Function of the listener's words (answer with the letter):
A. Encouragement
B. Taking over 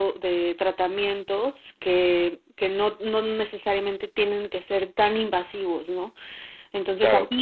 A